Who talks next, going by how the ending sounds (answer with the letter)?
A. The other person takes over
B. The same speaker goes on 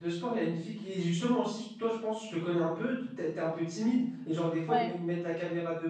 B